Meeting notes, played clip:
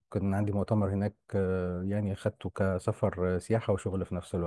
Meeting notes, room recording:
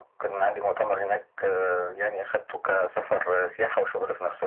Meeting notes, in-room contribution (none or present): none